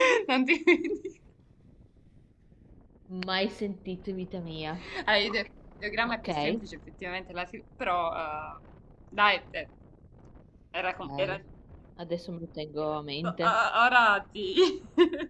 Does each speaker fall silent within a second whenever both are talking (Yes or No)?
Yes